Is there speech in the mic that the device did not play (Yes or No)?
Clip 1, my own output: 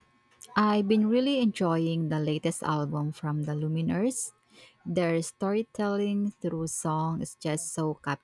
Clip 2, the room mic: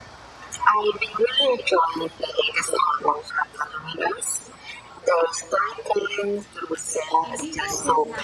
Yes